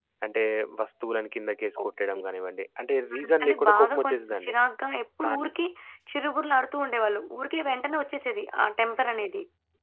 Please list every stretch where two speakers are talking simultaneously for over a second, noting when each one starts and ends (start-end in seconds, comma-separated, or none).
3.2-4.5